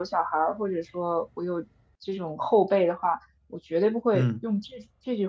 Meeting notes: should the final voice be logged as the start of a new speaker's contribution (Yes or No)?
No